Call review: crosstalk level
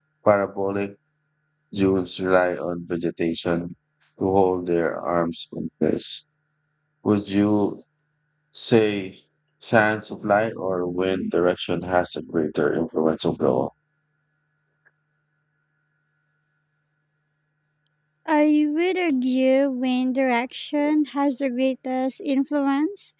none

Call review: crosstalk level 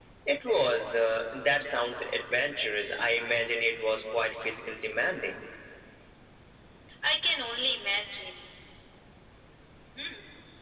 none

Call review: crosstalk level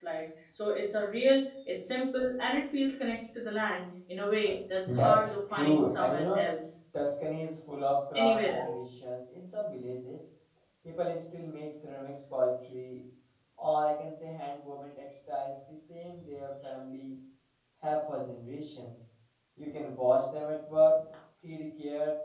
present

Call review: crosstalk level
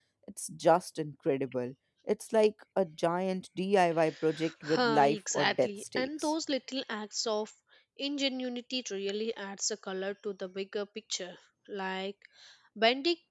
present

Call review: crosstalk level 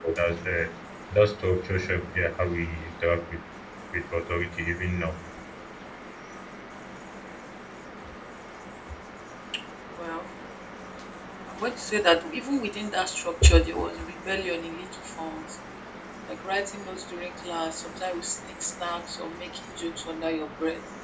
none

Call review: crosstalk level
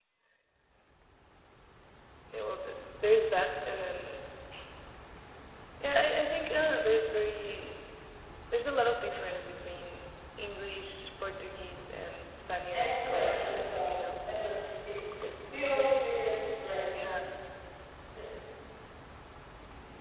present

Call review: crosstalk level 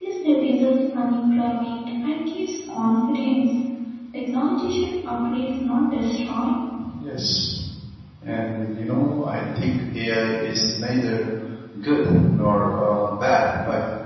none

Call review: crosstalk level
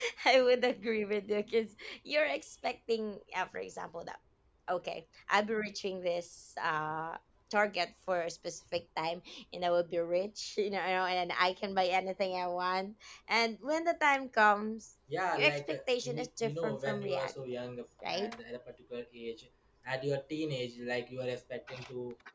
present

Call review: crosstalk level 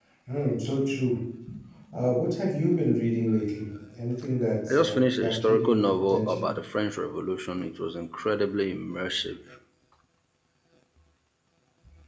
present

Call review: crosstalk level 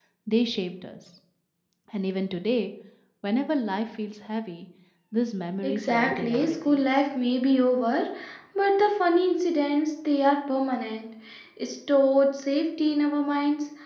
present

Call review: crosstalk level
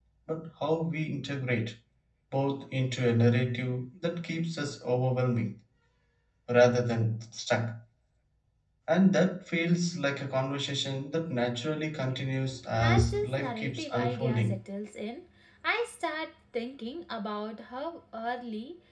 present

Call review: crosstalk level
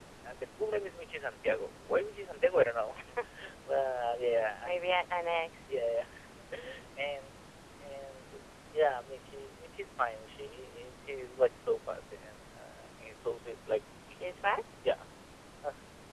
none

